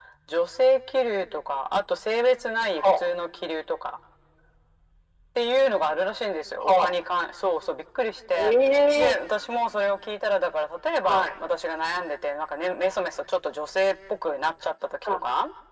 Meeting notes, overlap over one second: none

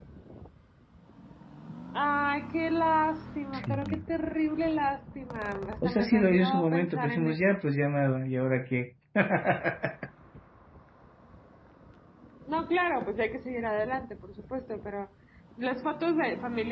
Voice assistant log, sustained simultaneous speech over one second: present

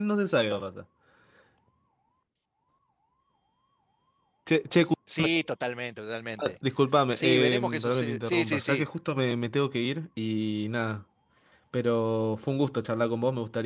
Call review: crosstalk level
present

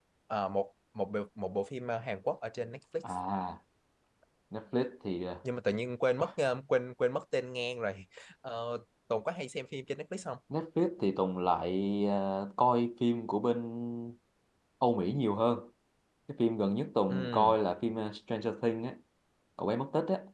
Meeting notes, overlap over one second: none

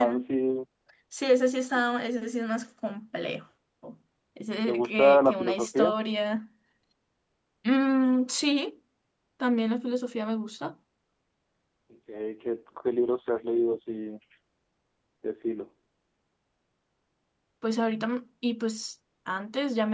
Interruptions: present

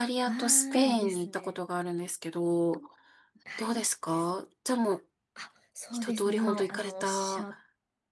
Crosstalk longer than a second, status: present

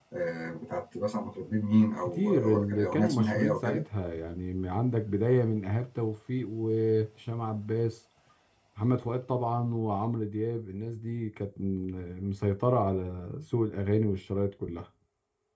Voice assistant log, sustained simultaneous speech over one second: present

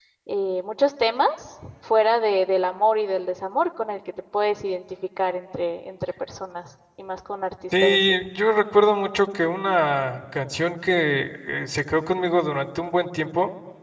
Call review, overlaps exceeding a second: none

